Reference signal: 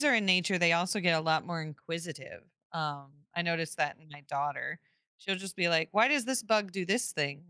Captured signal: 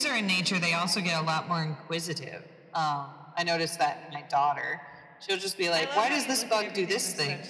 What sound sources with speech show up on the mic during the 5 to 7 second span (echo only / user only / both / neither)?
both